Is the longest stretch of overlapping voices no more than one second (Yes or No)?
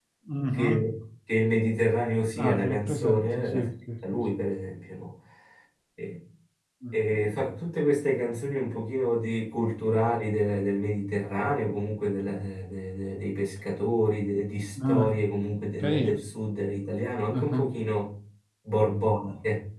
No